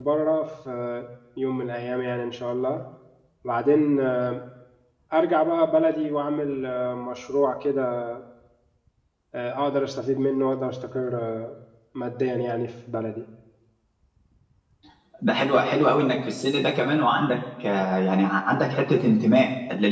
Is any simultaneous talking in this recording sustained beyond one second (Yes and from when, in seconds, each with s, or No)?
No